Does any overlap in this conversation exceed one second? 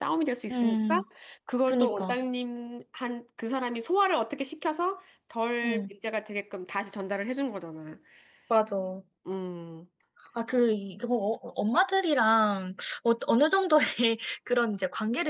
No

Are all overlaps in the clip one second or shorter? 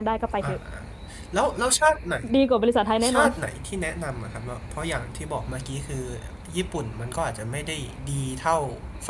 Yes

